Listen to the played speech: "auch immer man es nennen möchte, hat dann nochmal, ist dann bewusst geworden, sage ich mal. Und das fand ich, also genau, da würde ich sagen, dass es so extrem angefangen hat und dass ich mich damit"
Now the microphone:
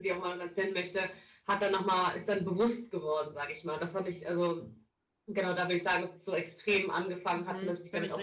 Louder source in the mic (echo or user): echo